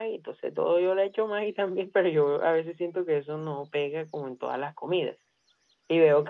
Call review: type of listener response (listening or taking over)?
taking over